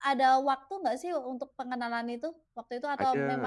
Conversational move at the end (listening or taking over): taking over